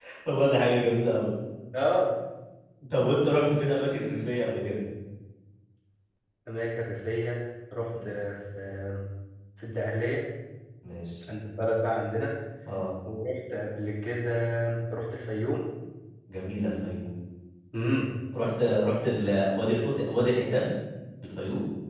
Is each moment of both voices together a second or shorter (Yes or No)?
Yes